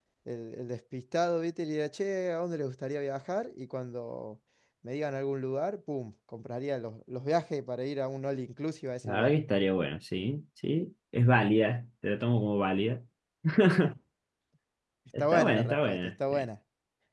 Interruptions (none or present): present